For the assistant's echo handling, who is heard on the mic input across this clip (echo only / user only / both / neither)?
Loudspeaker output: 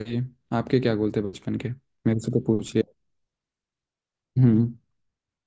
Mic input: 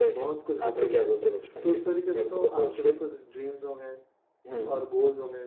both